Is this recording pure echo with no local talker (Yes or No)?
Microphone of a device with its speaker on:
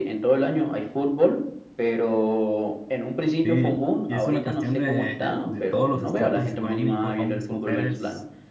No